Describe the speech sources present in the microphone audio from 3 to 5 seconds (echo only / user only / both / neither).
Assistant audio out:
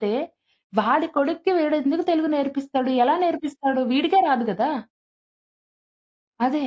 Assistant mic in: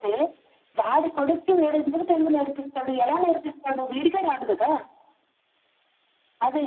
echo only